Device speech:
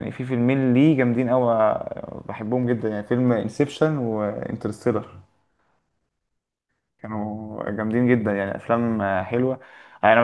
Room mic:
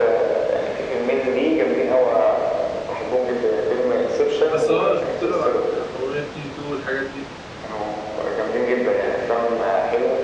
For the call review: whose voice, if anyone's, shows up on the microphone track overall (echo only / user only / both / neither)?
both